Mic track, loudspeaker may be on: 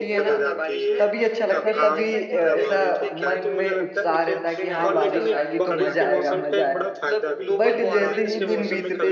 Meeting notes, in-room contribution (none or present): present